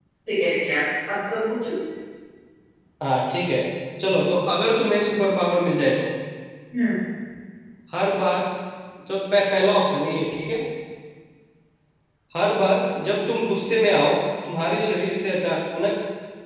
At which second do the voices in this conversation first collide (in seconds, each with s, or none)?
none